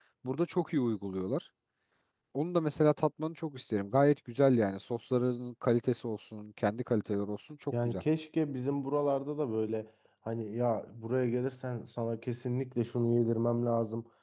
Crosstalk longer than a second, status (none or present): none